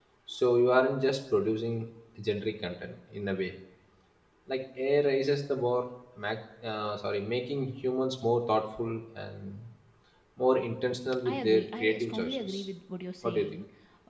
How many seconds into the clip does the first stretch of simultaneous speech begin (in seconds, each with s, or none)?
11.2 s